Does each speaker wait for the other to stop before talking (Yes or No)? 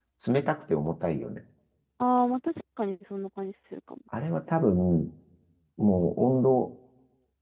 Yes